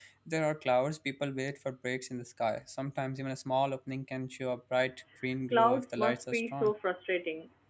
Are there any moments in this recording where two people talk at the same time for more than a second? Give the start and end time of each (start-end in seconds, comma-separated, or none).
5.5-6.7